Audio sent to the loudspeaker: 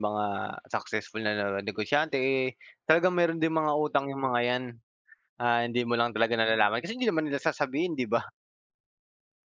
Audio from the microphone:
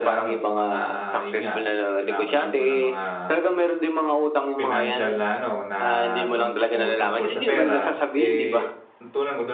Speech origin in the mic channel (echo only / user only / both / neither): both